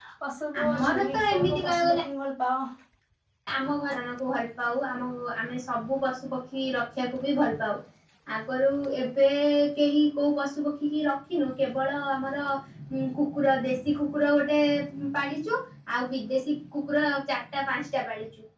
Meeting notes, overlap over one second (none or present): present